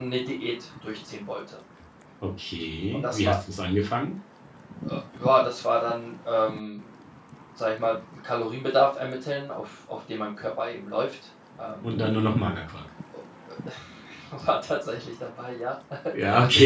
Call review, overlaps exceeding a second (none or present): none